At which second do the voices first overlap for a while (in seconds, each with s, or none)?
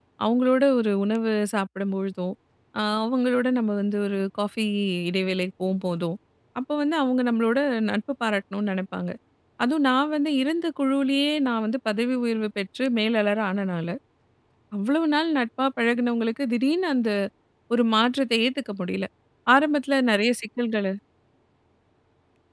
none